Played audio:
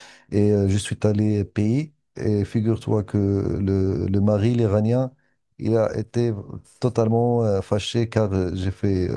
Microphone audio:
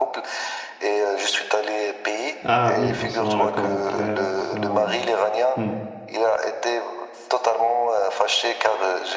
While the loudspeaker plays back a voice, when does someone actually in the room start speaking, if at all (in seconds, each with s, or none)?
2.4 s